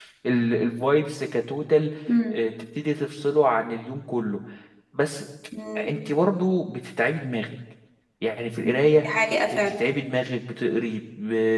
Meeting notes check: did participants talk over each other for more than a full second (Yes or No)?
No